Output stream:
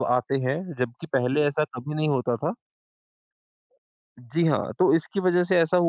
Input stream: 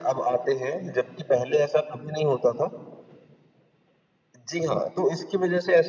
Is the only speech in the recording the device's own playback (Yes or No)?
Yes